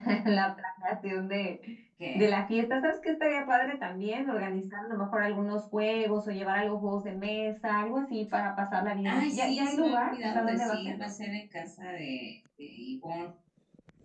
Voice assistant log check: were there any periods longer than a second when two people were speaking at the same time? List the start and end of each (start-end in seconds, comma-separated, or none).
9.0-10.9